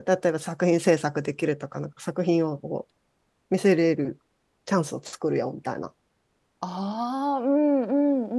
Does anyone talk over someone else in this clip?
No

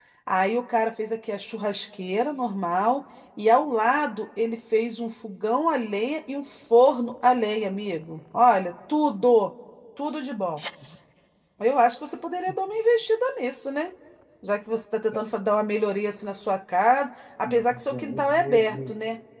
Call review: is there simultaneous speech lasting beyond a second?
Yes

